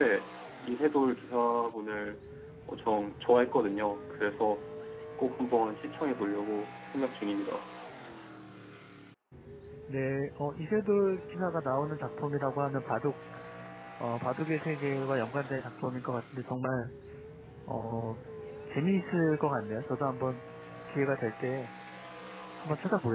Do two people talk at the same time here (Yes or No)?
No